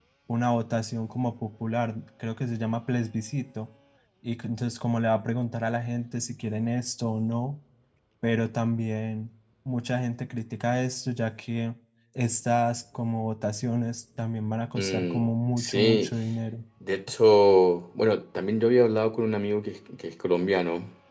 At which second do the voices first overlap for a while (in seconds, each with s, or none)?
14.8 s